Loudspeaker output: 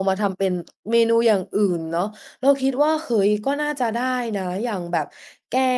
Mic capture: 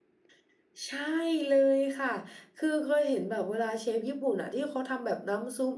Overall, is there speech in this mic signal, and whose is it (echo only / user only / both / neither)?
user only